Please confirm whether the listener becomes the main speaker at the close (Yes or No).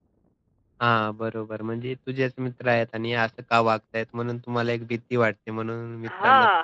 Yes